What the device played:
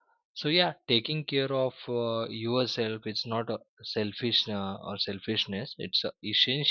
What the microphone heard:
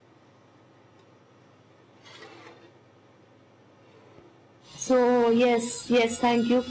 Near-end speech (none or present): present